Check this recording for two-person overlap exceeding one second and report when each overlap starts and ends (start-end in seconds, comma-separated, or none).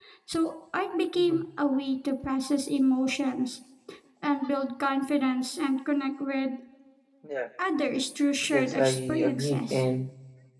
8.4-9.8